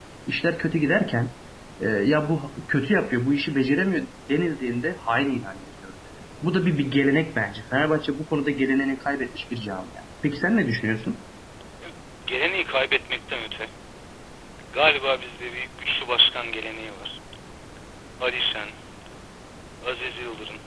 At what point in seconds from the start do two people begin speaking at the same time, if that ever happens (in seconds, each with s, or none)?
none